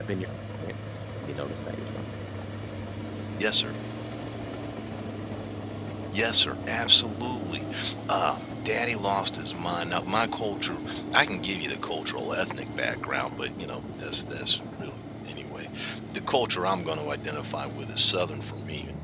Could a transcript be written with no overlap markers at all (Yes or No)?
Yes